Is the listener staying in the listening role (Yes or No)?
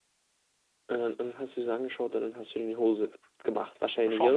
No